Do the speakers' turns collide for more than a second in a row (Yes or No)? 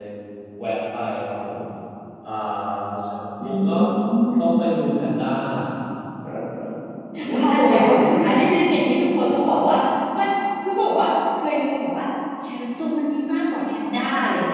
No